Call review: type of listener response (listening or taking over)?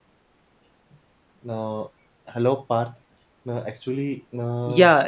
taking over